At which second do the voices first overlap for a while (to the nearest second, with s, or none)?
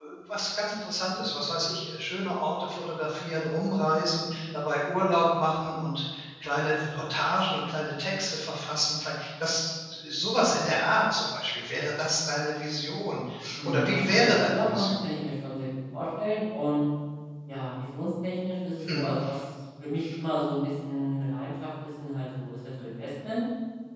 14 s